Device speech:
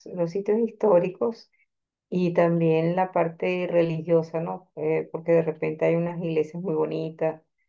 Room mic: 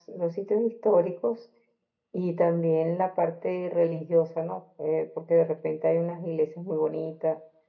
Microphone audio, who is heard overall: echo only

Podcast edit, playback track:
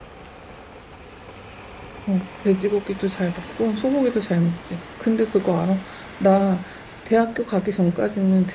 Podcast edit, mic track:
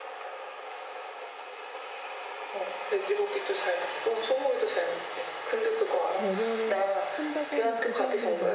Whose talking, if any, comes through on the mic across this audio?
both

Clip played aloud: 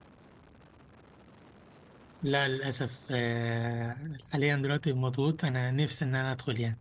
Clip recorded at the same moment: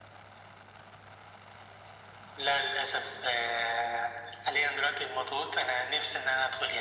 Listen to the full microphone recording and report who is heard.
echo only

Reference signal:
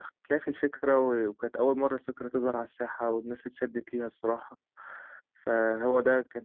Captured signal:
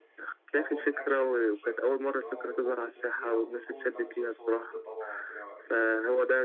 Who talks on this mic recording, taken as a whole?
both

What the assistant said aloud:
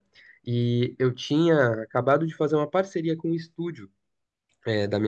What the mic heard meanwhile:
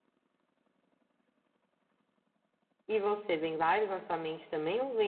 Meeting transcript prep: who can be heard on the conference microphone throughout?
user only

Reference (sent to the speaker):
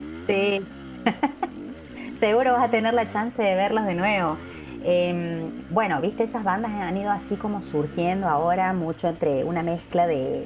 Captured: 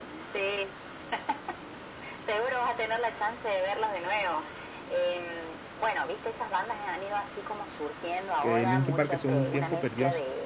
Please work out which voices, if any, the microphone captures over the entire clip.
both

